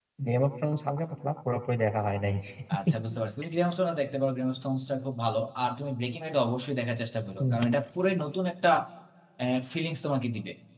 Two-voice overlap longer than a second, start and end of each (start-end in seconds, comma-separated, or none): none